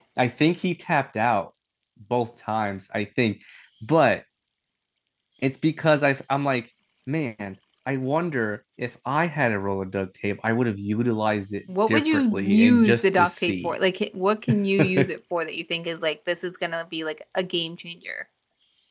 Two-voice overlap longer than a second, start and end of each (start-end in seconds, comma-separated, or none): 11.9-13.8